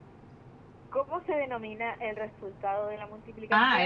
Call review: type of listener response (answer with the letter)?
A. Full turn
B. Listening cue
A